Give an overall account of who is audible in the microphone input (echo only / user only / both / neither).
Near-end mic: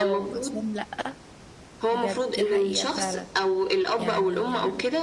both